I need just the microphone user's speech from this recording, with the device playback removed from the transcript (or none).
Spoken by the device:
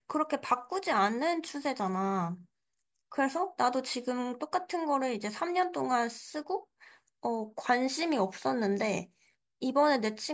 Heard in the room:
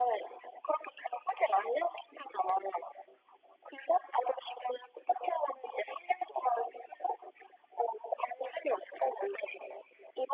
none